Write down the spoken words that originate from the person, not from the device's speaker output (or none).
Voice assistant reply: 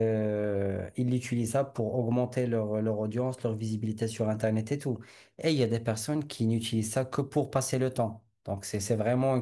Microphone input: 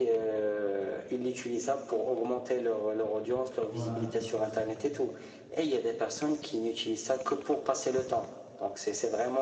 Ouais, c'est-